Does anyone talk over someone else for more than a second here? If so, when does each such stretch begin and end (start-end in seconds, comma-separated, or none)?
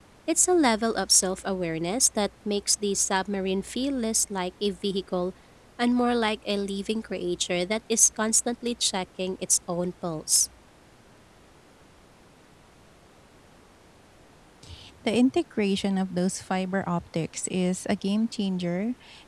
none